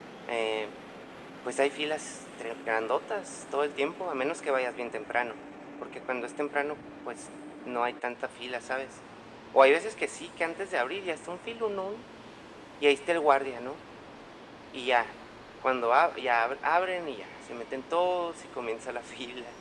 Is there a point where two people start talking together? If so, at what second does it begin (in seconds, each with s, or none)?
none